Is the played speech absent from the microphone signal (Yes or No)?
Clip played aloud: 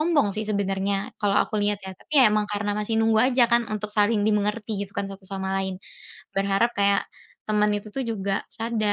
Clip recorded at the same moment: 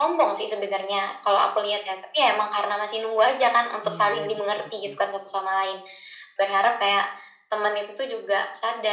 No